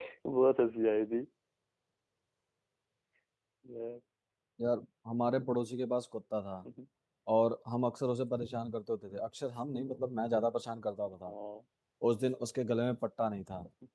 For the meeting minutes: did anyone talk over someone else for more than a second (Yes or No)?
No